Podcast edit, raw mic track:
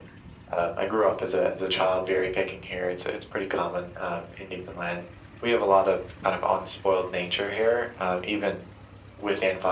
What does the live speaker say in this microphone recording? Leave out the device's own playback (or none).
none